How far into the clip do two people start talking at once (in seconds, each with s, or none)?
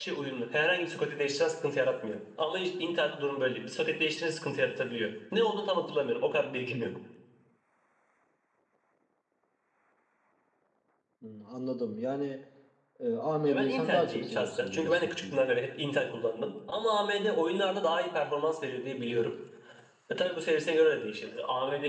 13.5 s